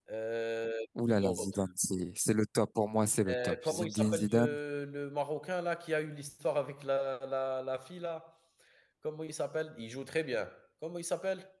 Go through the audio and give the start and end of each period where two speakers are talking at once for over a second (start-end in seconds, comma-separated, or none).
3.3-4.6